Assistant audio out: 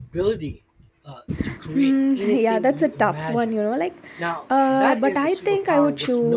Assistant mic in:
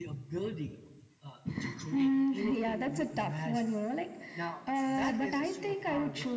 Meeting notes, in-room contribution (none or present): none